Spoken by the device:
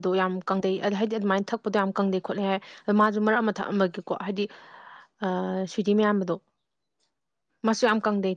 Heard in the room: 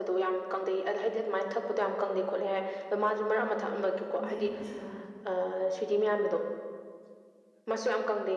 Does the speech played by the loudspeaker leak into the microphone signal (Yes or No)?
Yes